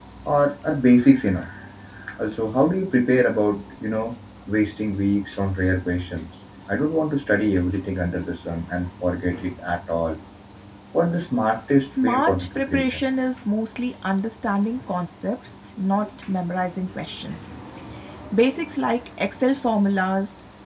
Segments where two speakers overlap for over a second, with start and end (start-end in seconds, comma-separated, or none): 11.8-13.0